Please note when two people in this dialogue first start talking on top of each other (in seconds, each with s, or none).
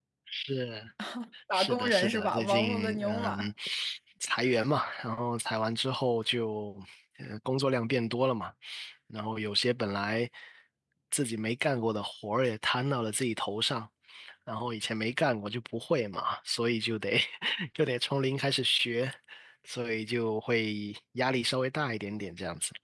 1.5 s